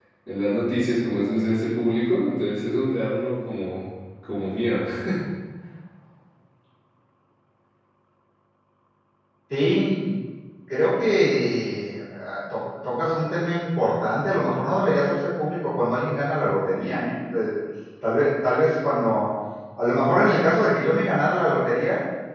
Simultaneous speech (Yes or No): No